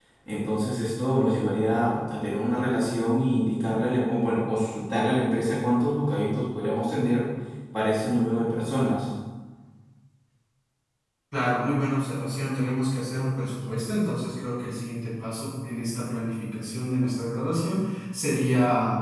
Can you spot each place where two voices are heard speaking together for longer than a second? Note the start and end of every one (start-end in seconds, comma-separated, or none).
none